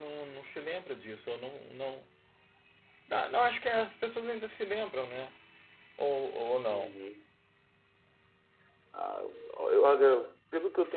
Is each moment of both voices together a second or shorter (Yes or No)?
Yes